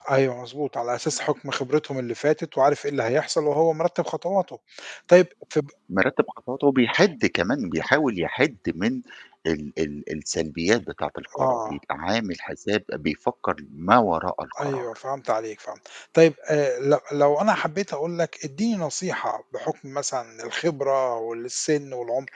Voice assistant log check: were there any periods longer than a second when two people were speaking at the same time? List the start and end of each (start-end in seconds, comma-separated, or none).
none